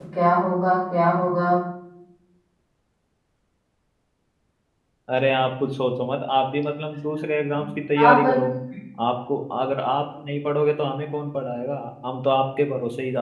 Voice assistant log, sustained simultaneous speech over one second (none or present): none